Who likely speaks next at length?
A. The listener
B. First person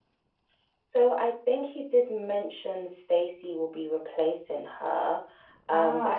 B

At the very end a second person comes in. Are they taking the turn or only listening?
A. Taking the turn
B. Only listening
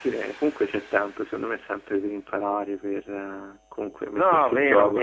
A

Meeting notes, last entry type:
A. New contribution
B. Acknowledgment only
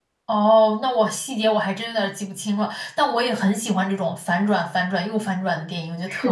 A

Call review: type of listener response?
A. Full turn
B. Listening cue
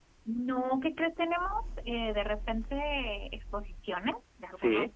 B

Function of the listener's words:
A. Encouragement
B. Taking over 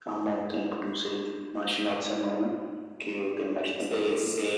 B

